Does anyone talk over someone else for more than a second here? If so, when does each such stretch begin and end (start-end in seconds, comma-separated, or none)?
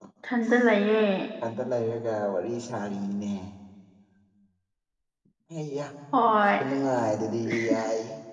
none